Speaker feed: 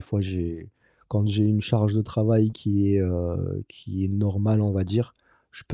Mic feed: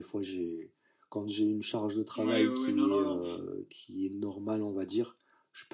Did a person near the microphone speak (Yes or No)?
Yes